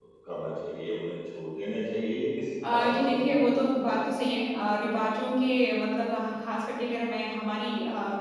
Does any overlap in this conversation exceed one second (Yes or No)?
Yes